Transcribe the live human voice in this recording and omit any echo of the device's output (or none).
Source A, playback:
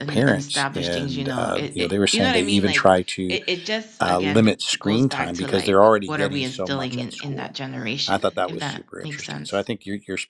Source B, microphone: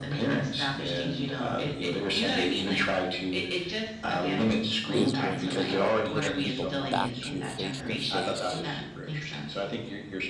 is going to help push people back to face to face